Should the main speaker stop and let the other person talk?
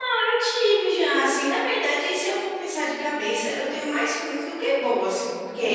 No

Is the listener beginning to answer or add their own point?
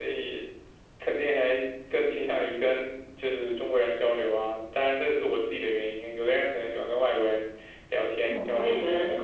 Yes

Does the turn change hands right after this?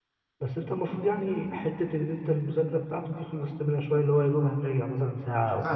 Yes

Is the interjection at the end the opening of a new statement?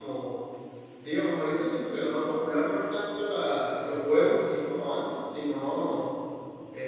No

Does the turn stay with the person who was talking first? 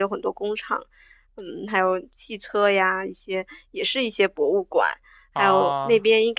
Yes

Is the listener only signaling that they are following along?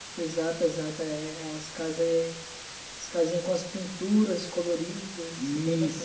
No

